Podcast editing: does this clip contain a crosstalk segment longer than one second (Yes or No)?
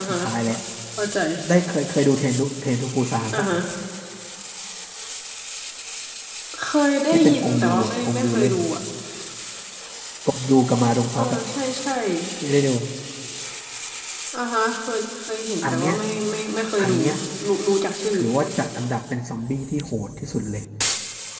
Yes